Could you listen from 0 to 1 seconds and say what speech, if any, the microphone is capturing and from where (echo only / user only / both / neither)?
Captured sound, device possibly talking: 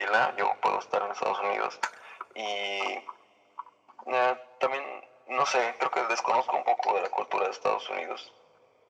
echo only